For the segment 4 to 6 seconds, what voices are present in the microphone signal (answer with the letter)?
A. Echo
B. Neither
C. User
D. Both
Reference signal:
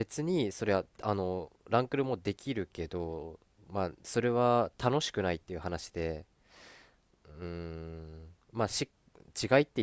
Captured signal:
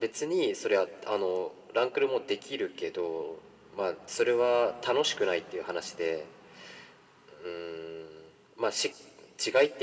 A